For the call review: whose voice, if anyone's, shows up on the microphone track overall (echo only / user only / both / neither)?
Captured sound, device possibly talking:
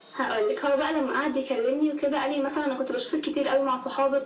echo only